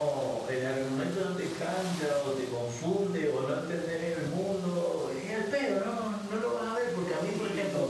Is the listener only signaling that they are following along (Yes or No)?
No